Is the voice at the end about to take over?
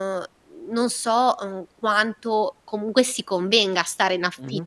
No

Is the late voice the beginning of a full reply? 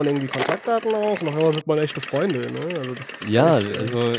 Yes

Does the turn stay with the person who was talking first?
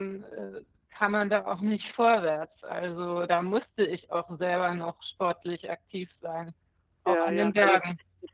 No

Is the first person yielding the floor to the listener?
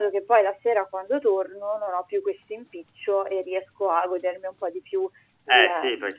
Yes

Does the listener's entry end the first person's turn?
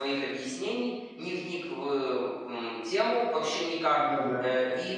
No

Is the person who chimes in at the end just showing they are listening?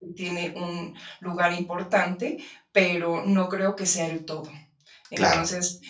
Yes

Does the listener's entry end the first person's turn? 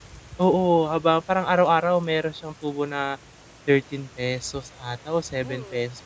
Yes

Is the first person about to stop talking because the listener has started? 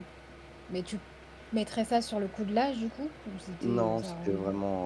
Yes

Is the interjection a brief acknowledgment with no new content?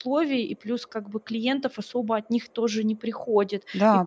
Yes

